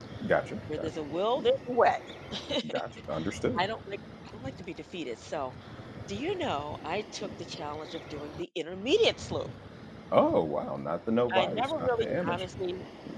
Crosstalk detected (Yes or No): Yes